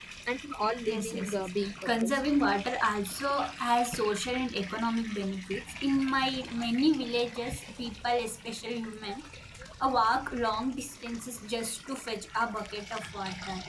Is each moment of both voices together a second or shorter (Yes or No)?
No